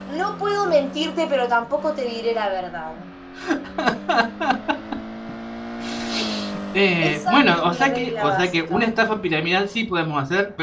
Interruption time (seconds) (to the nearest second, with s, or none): 7 s